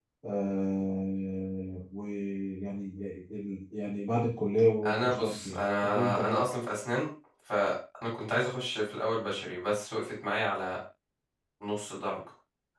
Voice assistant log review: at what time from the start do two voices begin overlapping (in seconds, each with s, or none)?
5.0 s